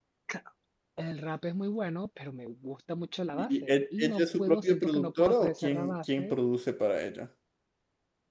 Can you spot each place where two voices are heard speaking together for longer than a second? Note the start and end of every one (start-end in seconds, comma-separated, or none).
3.3-6.4